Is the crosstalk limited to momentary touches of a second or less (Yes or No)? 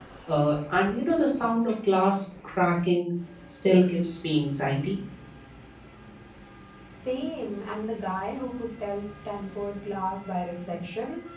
Yes